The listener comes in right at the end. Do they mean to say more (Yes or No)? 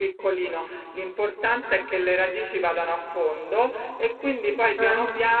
No